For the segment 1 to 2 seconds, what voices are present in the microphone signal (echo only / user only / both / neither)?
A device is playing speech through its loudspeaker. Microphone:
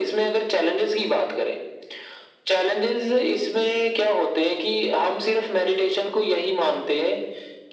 echo only